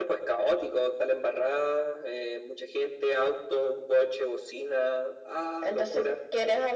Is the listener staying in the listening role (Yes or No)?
No